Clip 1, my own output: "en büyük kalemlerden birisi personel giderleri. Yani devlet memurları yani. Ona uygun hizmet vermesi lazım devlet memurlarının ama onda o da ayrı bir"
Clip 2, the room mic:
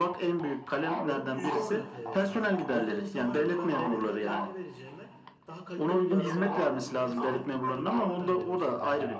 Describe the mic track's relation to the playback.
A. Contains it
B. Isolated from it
A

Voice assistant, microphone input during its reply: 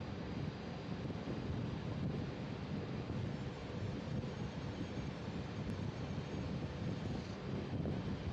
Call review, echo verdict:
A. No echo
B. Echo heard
A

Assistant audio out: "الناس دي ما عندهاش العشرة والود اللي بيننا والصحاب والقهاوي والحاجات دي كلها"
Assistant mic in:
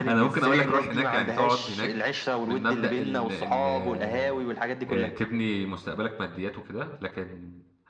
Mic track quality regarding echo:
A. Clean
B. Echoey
B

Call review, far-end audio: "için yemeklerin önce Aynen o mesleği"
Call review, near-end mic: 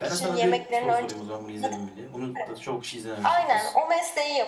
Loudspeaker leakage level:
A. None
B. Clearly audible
B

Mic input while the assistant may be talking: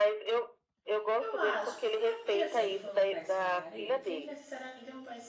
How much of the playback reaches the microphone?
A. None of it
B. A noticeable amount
B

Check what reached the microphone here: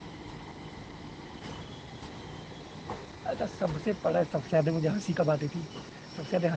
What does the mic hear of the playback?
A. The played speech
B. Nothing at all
B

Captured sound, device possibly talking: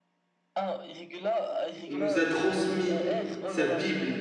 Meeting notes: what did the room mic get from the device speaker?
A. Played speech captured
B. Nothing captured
A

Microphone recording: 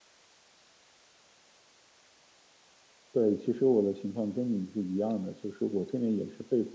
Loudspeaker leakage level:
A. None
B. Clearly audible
A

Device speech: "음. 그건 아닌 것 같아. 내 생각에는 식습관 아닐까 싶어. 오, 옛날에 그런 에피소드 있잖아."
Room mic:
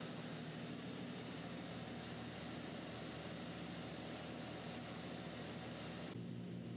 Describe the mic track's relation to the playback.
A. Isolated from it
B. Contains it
A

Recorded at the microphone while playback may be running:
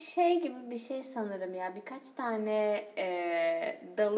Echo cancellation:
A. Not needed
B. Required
A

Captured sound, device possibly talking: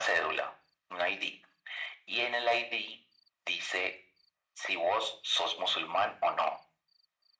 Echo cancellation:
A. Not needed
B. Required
B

